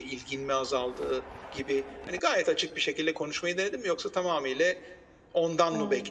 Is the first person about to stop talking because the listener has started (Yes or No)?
No